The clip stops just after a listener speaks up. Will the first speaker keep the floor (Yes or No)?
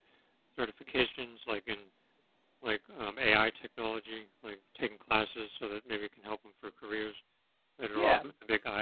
No